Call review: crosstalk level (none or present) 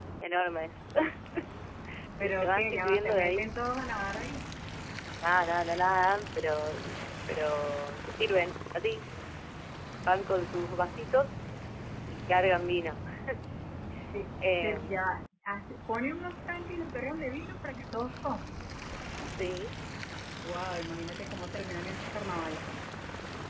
present